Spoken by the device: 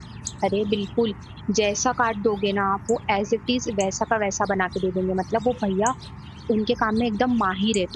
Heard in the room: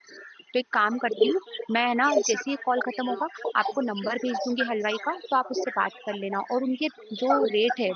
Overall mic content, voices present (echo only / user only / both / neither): both